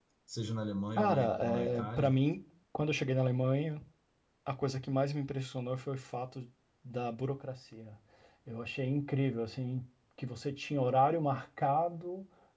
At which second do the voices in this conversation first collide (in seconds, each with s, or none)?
1.0 s